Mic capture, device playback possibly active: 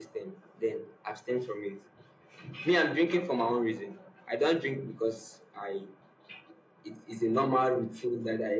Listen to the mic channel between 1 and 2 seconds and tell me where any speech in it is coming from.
echo only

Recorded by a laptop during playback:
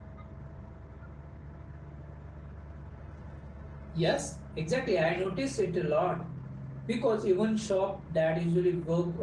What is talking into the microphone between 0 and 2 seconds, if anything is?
neither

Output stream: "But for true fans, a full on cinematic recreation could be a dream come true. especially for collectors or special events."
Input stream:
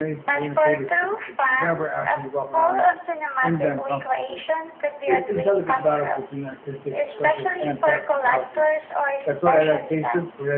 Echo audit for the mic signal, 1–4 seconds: both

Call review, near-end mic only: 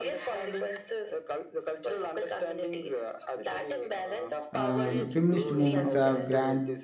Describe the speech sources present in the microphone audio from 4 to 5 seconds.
both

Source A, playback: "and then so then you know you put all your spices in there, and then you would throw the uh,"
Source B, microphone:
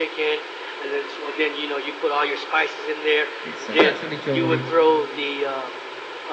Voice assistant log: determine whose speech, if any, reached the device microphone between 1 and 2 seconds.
echo only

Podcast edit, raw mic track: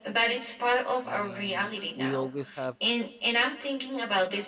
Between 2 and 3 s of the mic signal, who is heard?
both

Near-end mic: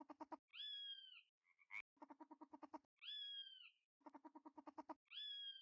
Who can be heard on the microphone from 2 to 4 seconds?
neither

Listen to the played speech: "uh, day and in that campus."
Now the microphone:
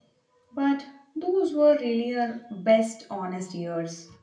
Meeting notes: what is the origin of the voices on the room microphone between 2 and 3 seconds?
user only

